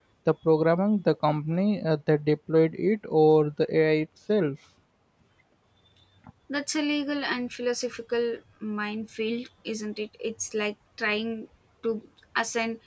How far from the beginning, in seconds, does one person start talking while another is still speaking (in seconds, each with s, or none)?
none